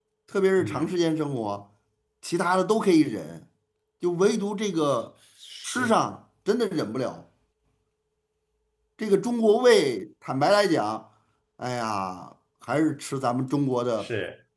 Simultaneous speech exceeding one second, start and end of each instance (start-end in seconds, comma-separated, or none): none